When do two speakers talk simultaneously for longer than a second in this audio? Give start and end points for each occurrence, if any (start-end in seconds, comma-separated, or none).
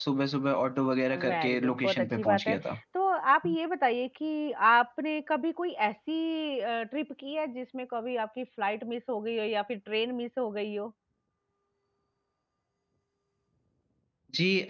1.3-2.6